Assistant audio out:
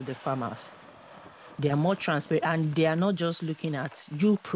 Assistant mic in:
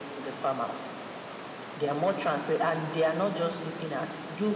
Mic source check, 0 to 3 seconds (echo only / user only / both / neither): echo only